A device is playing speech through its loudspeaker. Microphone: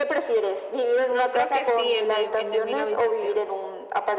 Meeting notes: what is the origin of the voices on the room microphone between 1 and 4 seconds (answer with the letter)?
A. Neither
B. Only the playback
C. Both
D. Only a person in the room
C